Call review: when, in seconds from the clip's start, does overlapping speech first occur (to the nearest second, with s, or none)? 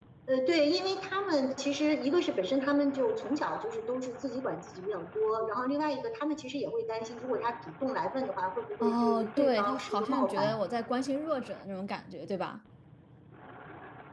9 s